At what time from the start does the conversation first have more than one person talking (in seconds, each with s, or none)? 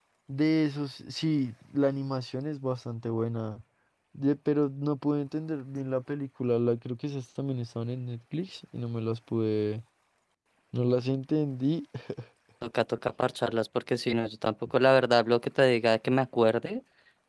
none